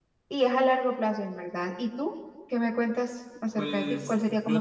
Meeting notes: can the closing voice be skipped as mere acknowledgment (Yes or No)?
No